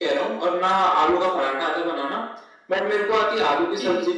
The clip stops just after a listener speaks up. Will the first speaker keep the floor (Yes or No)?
Yes